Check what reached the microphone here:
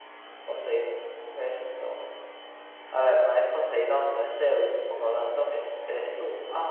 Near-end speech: none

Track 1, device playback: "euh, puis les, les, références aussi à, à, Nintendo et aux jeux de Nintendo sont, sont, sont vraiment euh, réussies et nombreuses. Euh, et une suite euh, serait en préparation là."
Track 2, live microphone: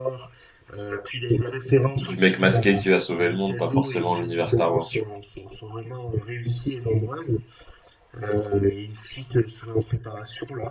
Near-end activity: present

